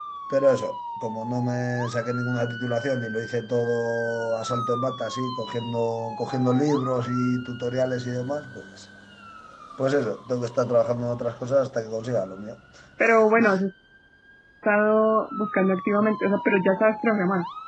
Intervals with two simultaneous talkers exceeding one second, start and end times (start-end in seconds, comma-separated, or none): none